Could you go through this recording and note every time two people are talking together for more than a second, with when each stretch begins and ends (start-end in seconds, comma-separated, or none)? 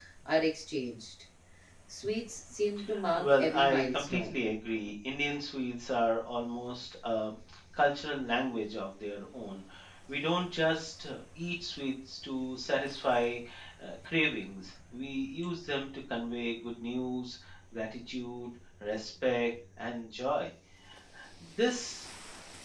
3.1-4.4